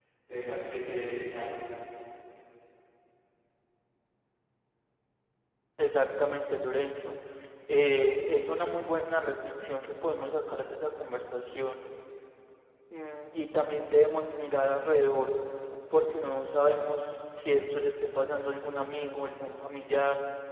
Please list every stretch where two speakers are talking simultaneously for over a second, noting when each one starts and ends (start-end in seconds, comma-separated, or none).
none